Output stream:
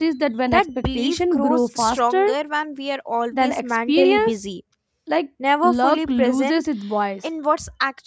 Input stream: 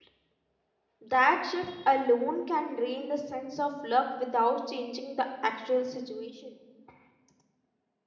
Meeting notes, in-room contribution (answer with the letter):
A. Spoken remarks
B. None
A